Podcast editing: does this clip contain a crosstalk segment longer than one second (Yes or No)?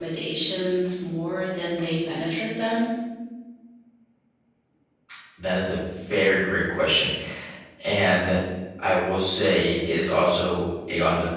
No